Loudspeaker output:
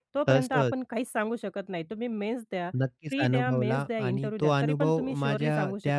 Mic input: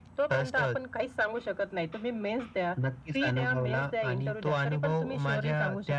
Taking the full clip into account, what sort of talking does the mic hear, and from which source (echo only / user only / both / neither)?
echo only